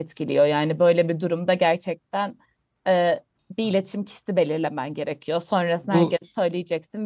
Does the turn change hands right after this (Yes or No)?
No